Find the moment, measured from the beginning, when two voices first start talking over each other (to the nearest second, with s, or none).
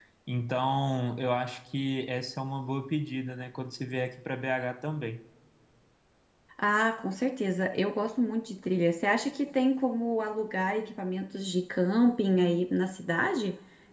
none